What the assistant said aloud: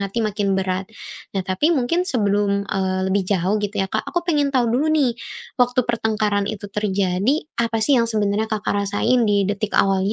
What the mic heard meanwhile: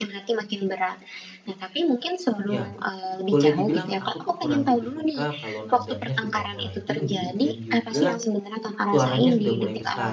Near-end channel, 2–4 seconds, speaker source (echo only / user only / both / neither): both